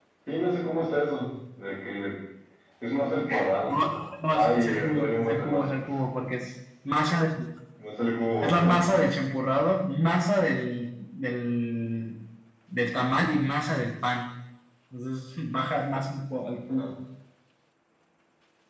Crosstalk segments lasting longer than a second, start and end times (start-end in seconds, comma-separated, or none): 4.3-5.6